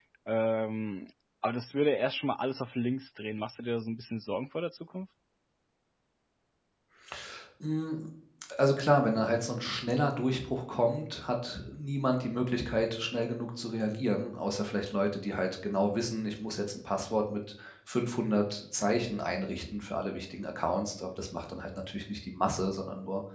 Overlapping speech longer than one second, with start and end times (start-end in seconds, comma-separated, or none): none